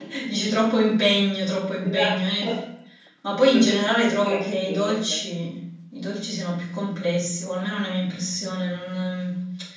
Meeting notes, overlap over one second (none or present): present